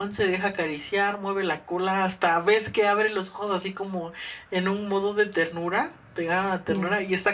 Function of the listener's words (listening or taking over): listening